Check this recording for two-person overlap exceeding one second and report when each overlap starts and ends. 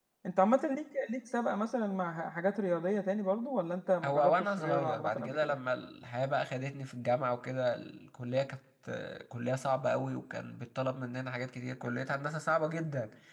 4.0-5.6

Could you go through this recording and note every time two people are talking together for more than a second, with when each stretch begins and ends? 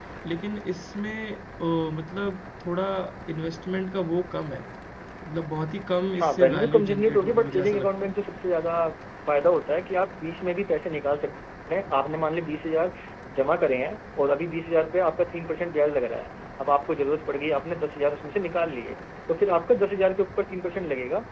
6.2-8.1

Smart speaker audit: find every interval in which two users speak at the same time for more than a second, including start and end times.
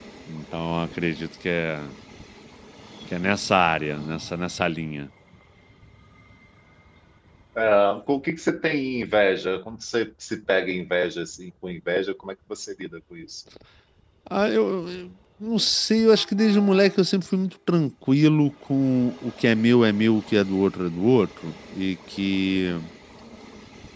none

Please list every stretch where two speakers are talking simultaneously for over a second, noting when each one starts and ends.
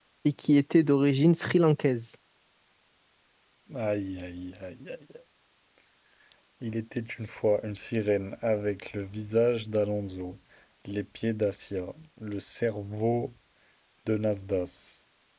none

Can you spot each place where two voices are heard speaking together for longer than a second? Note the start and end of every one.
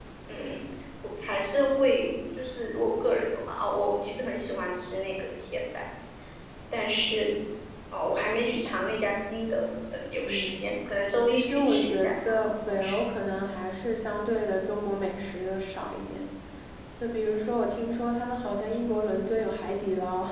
11.2-12.9

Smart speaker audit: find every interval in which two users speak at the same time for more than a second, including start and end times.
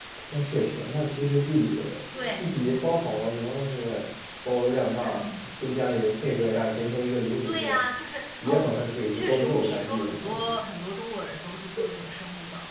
9.1-10.5

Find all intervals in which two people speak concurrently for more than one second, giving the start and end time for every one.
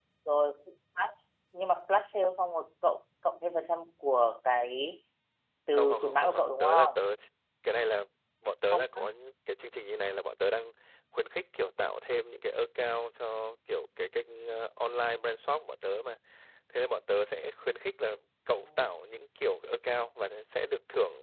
5.7-7.0

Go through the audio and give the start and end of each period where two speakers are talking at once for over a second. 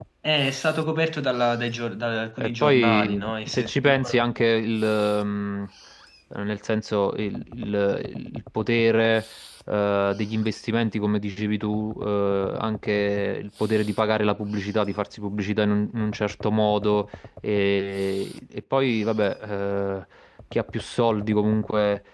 2.4-4.2

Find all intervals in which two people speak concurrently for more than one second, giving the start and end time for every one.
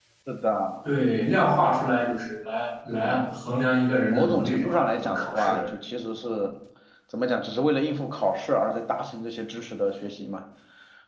4.1-5.6

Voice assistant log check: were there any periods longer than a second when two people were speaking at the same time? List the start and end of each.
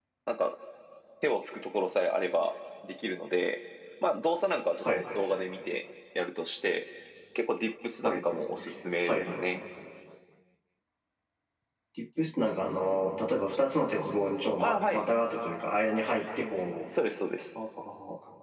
none

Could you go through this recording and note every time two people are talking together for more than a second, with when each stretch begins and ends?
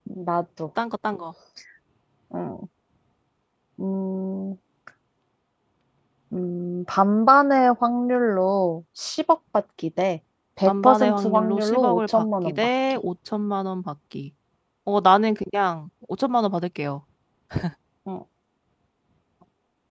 10.7-13.0

